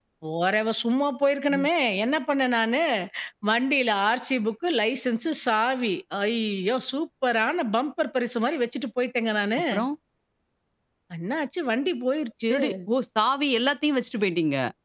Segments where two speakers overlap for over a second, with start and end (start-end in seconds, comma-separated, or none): none